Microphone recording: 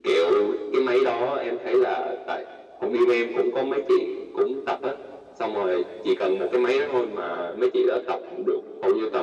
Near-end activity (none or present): none